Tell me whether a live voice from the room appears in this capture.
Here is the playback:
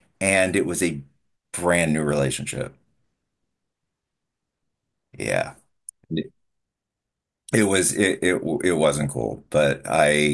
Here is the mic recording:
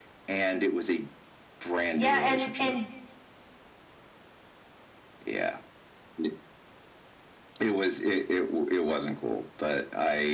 Yes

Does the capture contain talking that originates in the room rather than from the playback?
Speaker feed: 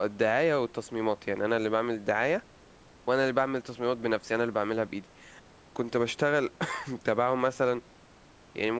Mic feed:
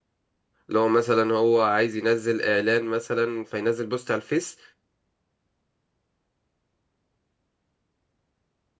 Yes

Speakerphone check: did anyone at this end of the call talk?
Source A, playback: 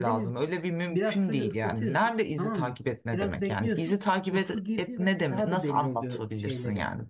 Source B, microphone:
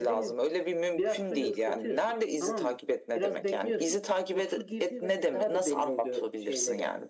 No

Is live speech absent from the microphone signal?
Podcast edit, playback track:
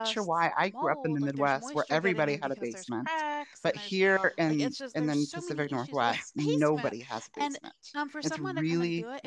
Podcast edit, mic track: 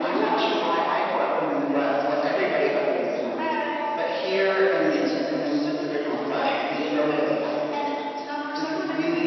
Yes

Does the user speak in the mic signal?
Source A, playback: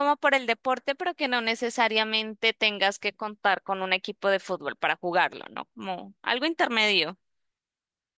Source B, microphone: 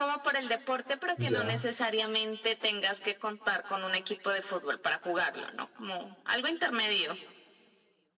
Yes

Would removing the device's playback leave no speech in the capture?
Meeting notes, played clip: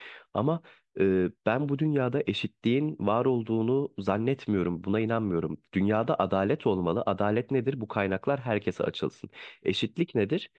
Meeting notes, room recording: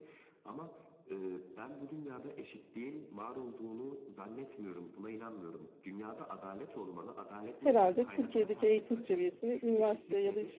No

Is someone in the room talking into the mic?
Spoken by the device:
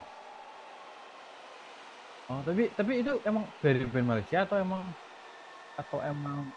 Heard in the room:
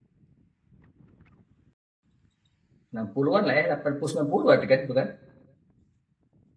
Yes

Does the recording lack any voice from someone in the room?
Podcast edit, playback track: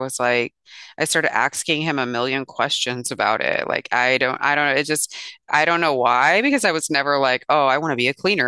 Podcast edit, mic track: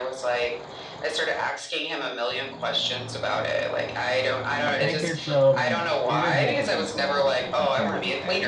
No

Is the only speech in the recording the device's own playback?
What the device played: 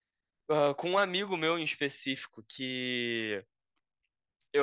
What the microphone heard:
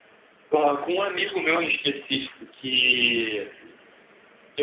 Yes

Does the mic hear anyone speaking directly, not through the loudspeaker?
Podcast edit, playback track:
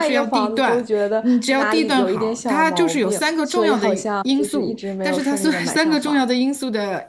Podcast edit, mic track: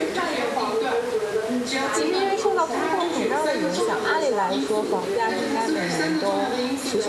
Yes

